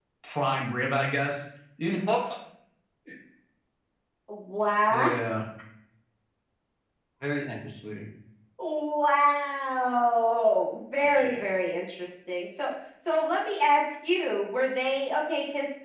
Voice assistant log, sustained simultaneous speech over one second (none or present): none